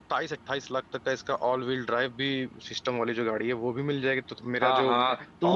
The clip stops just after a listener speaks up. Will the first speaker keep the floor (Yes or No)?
No